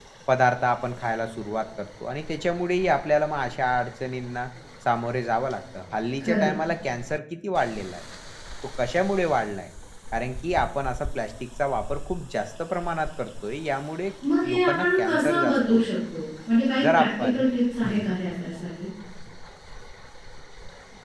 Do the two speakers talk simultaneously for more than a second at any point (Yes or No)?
Yes